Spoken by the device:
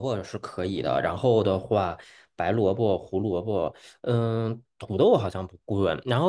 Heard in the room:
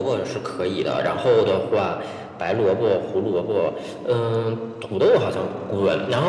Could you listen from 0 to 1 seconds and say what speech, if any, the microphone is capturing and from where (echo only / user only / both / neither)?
echo only